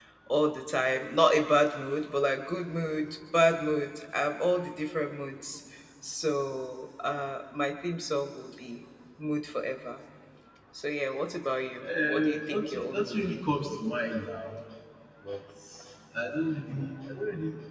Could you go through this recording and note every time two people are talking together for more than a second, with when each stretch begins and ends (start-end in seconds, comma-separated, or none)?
12.1-13.4